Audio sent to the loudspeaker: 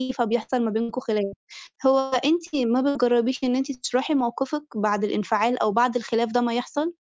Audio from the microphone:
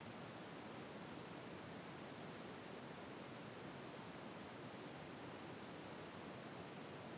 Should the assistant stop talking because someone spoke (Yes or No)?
No